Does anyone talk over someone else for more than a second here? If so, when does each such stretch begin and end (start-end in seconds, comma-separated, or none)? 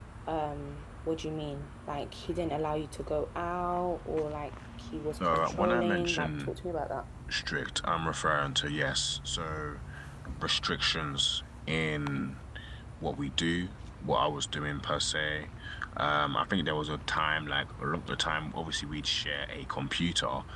5.2-6.5